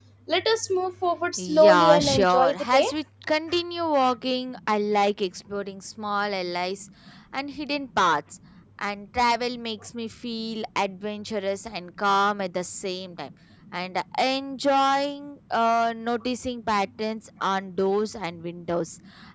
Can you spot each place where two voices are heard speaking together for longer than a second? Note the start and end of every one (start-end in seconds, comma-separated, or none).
1.4-2.9